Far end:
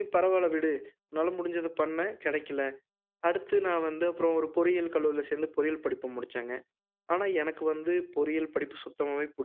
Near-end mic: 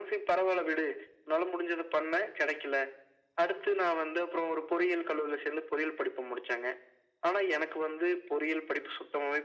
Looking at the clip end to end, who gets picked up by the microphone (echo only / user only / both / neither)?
echo only